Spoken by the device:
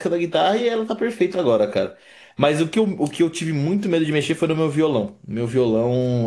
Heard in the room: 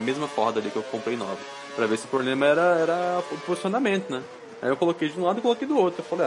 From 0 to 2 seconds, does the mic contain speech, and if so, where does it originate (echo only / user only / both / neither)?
user only